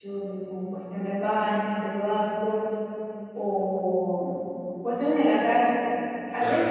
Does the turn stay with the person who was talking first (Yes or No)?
Yes